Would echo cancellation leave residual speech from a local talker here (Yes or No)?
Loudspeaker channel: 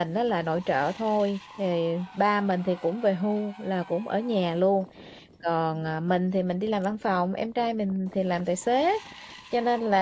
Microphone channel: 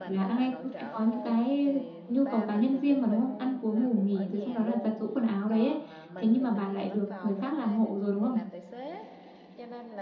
Yes